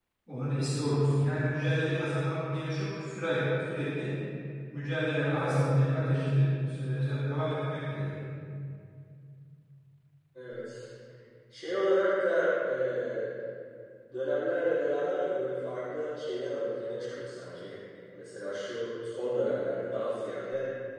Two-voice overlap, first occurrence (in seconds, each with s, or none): none